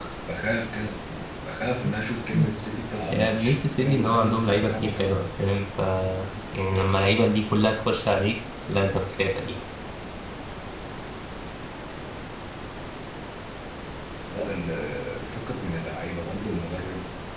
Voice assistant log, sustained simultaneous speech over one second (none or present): present